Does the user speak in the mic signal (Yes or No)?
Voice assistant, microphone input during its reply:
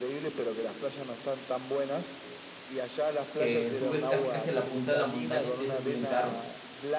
Yes